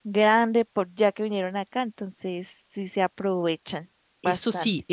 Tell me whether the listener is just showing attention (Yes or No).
No